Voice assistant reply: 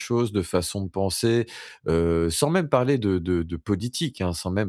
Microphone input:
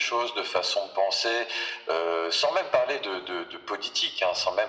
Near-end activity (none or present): none